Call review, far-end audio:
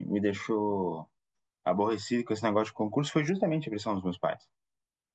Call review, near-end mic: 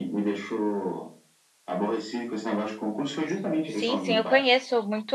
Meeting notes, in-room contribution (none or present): present